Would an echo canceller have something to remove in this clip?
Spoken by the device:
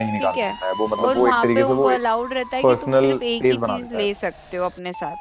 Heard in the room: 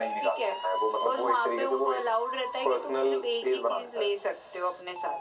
Yes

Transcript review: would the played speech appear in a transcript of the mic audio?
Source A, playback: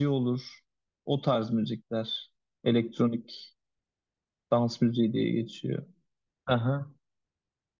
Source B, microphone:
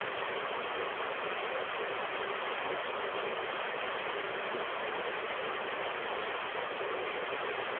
No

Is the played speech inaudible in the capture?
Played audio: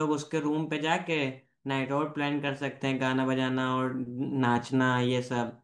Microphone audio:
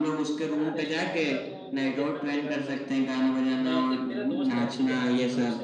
No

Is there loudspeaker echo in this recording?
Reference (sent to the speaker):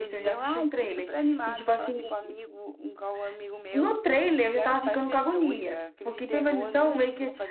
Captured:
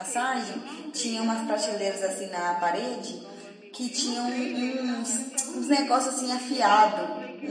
Yes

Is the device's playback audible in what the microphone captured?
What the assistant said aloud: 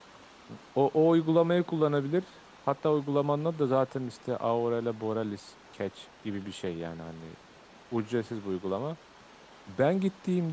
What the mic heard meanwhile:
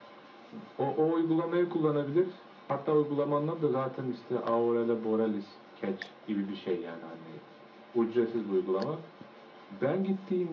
Yes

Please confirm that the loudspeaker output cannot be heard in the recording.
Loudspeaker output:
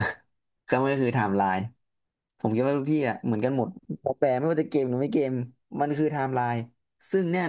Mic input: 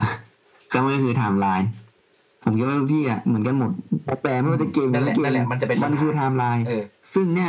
No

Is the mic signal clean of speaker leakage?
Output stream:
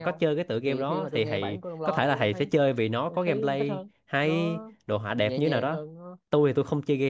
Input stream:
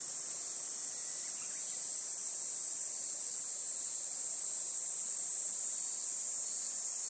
Yes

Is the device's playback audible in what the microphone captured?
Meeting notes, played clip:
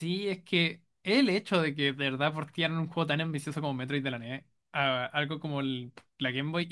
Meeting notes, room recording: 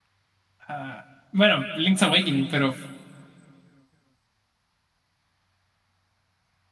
No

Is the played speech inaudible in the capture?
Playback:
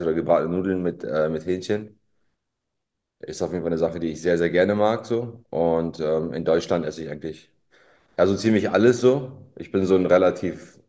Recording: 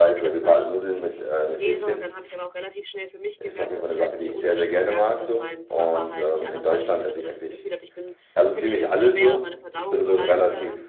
No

